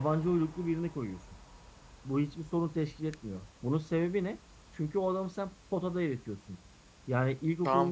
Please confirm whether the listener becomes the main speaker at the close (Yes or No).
Yes